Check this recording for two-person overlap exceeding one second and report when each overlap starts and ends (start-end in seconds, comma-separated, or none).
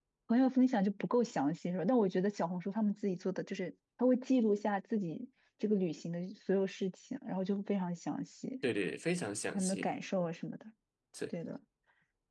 none